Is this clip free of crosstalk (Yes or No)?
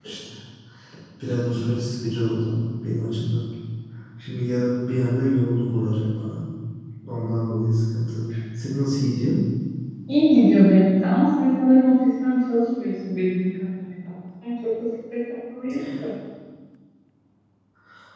Yes